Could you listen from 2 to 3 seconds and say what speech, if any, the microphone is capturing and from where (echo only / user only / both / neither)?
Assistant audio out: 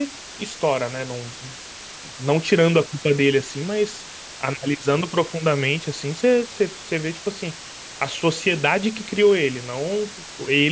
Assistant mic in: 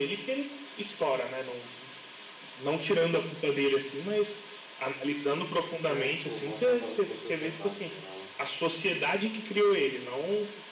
echo only